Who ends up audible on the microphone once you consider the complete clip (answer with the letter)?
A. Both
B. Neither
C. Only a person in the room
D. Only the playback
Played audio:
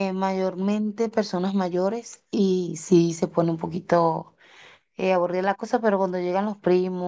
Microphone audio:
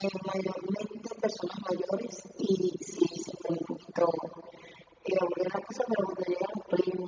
D